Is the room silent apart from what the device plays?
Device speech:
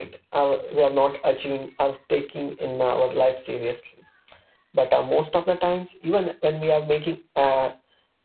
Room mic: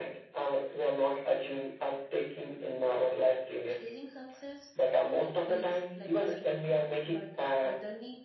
No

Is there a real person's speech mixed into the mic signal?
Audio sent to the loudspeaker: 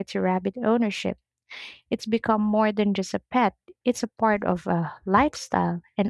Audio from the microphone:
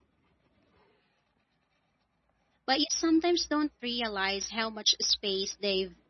Yes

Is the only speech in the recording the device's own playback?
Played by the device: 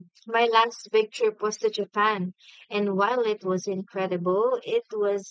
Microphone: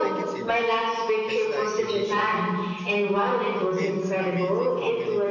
No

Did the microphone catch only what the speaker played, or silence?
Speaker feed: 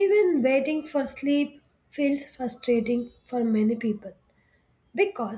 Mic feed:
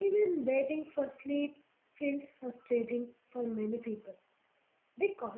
Yes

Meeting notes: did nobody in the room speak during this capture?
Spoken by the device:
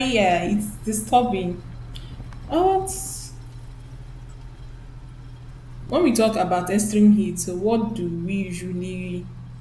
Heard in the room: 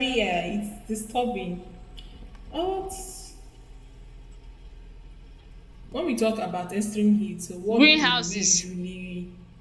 No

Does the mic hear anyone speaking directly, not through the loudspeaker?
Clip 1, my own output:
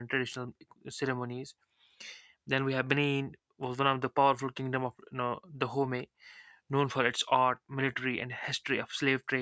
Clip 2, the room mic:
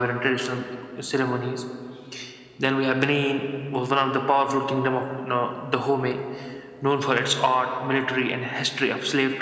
No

